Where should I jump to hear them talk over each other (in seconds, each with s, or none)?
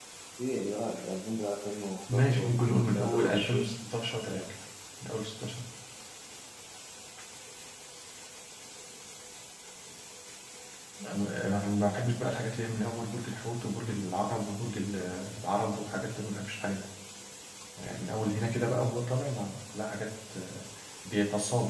2.1 s